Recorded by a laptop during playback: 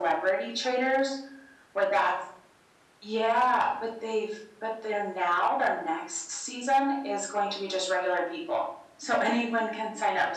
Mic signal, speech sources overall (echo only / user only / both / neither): echo only